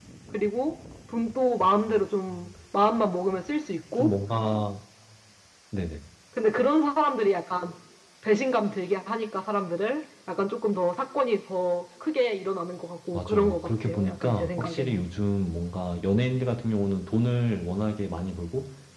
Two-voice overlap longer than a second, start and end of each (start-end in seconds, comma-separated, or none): 13.1-15.1